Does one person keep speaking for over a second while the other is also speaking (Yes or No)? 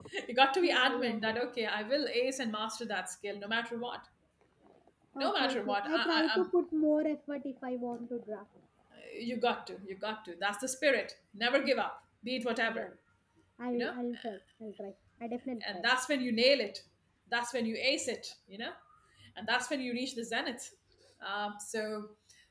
Yes